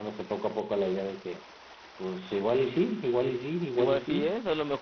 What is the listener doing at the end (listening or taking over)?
taking over